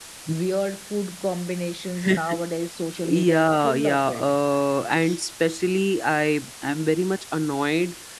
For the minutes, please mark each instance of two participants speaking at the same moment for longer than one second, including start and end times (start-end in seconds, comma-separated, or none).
3.0-4.3